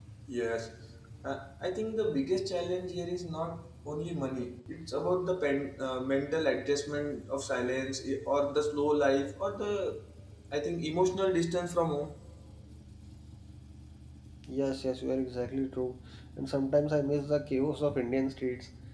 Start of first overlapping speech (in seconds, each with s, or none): none